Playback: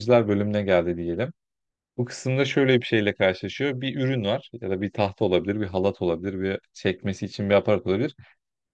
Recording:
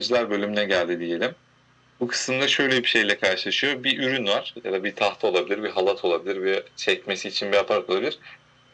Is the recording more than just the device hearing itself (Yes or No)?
No